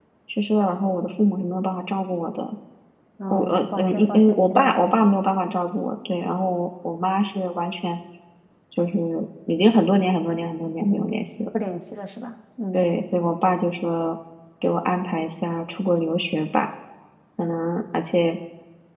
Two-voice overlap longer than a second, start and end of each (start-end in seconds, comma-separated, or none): 3.3-5.0